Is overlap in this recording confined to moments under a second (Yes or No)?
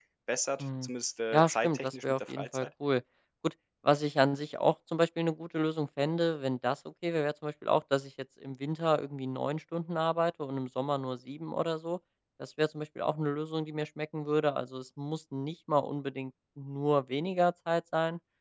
No